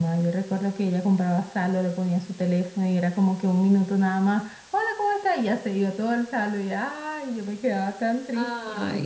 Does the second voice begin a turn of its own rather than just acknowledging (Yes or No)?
No